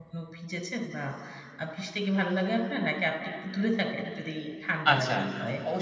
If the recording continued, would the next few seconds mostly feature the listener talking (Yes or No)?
Yes